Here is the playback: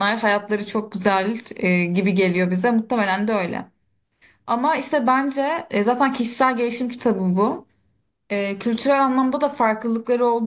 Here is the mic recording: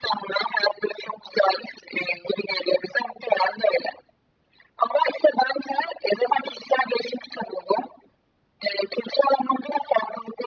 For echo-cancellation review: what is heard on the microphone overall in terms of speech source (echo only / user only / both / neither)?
echo only